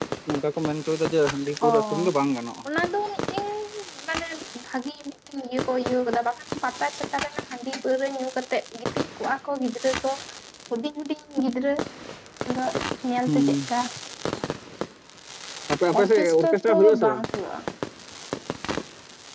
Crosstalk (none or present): present